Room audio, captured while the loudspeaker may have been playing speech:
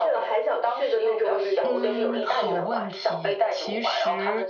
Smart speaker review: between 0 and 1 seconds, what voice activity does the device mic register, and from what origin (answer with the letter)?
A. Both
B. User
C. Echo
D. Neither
C